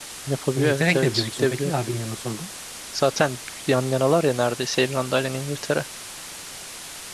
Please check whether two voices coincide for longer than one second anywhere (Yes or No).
Yes